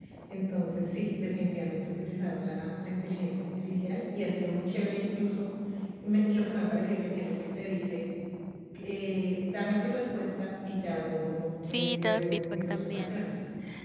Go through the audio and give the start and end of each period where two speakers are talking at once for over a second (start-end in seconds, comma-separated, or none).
11.7-13.1